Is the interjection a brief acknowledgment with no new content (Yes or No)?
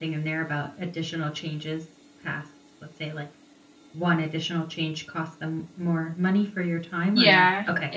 No